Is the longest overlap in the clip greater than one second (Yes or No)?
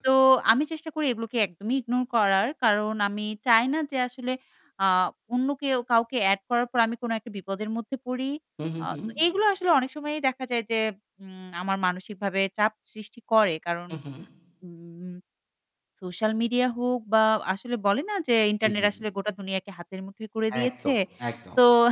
No